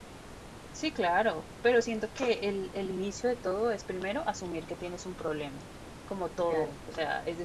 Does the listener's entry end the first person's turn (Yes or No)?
No